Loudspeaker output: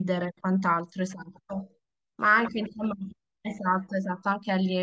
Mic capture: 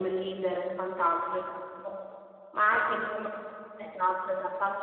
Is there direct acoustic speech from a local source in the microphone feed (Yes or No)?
No